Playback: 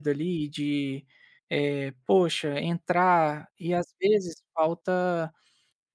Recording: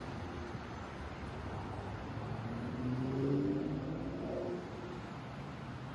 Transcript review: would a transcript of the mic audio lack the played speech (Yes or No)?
Yes